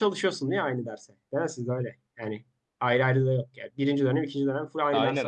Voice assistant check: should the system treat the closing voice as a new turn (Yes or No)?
Yes